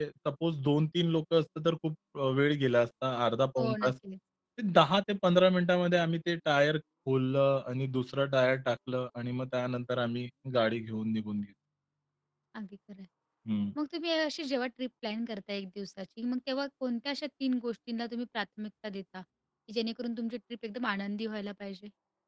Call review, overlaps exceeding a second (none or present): none